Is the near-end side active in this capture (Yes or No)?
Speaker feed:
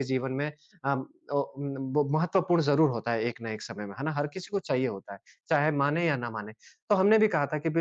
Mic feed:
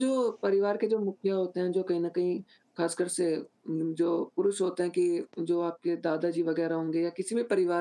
Yes